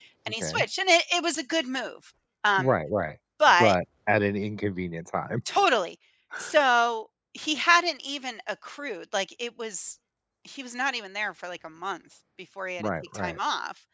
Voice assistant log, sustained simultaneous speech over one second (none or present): none